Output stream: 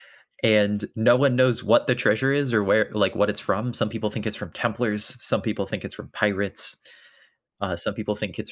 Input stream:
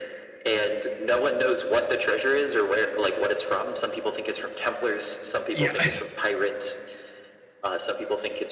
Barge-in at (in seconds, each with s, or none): 5.5 s